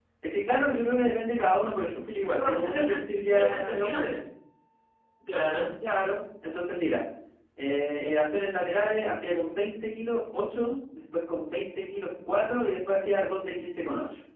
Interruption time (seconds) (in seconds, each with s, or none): 2.2 s